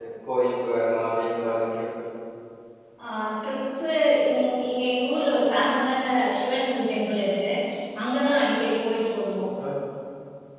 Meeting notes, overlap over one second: none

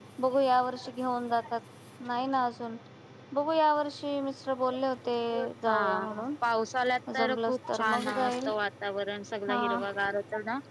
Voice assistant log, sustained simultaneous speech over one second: present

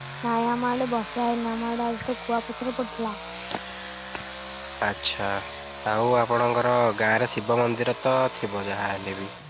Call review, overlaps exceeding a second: none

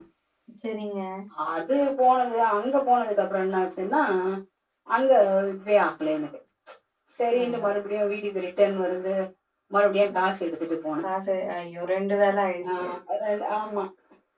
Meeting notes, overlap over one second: none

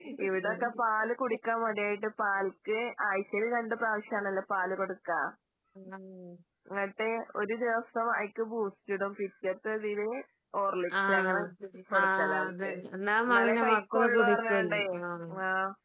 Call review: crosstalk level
present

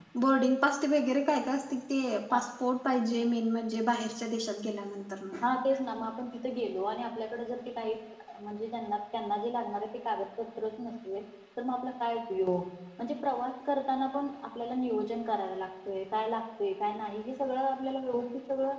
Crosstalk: none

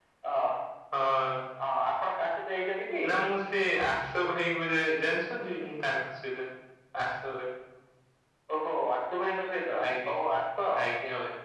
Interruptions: none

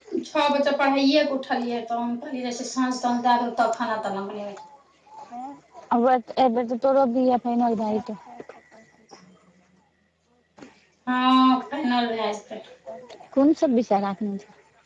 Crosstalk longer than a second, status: none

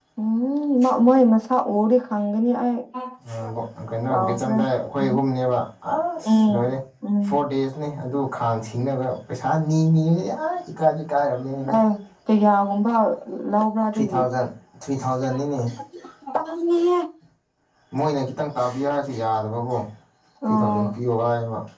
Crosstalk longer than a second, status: none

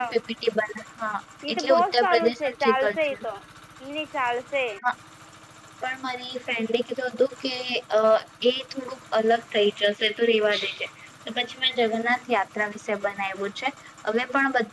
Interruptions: present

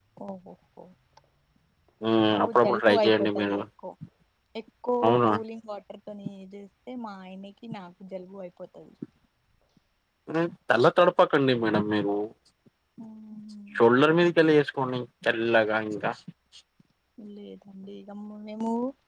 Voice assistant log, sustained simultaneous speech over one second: present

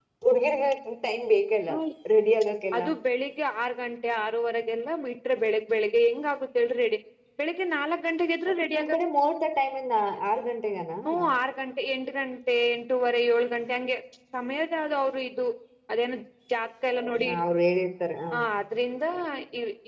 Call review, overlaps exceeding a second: none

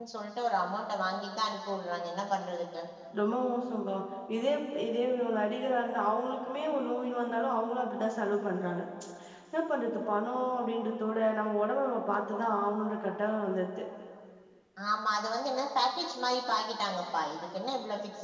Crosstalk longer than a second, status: none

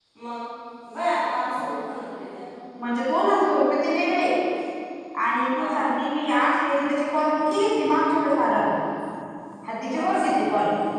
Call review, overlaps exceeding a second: none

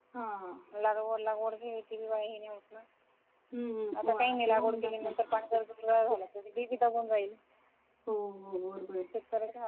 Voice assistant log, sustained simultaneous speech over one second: present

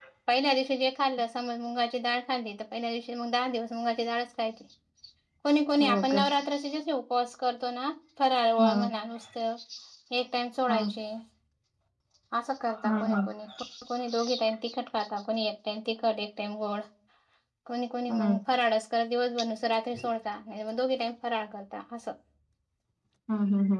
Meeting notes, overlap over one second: none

